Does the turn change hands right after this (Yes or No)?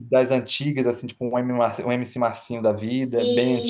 Yes